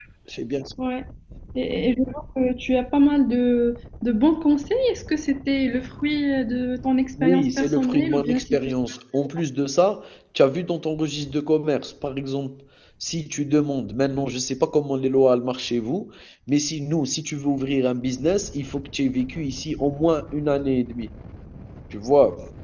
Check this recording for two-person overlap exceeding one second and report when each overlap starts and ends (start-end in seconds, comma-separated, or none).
7.2-8.7